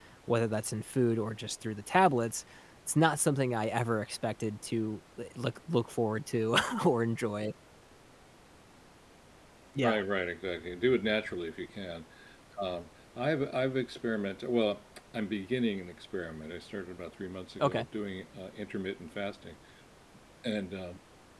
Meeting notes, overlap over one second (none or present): none